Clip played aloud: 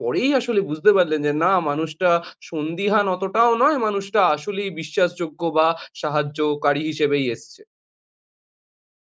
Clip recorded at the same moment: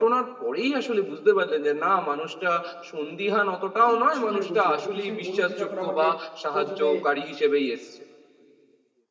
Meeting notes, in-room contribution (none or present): present